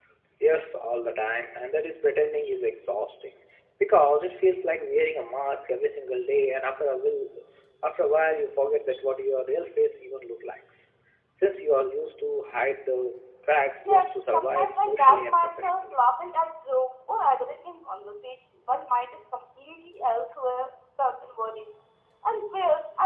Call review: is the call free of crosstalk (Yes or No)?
No